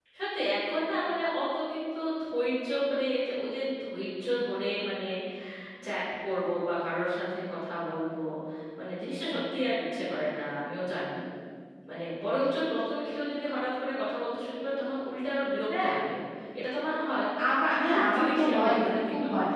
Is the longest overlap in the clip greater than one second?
Yes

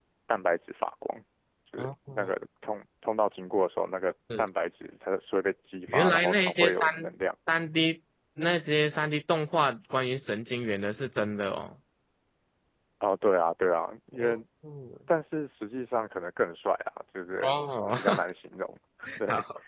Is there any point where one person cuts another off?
Yes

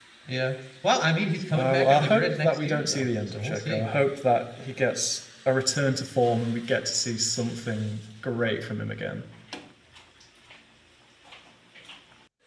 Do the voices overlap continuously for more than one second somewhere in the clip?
Yes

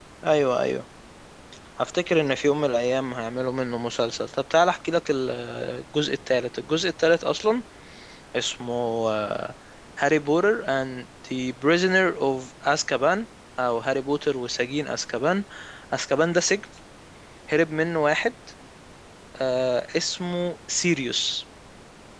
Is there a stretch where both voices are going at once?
No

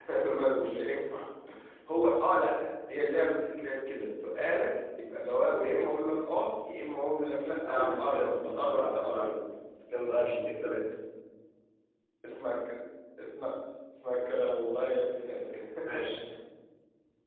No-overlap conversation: No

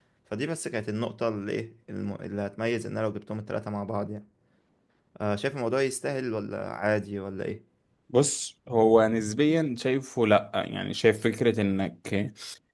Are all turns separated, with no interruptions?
Yes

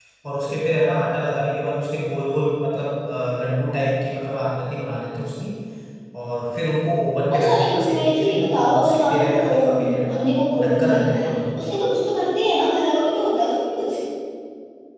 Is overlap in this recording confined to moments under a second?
No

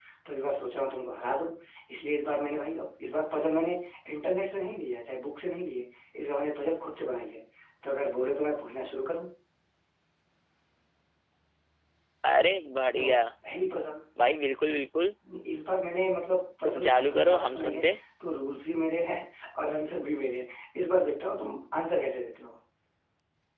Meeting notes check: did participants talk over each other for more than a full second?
Yes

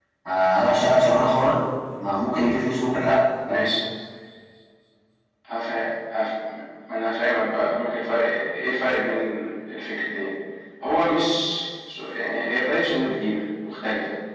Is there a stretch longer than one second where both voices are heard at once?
No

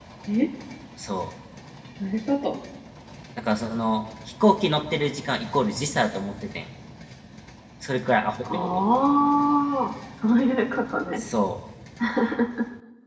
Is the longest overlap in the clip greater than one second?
No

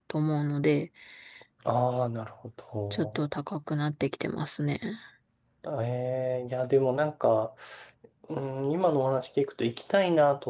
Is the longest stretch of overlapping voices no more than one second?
Yes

